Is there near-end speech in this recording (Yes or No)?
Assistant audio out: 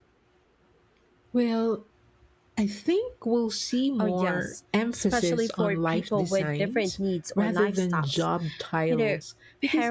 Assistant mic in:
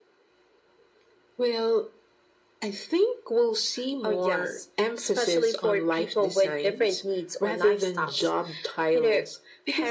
No